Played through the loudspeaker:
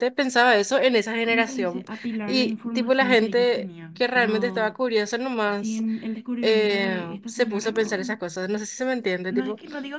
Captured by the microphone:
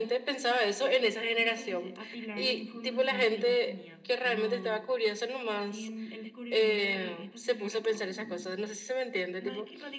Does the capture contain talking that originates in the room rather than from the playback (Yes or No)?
Yes